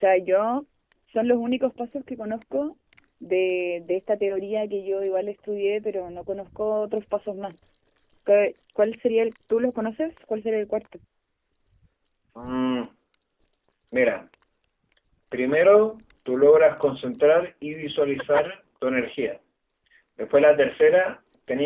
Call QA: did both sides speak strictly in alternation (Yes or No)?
Yes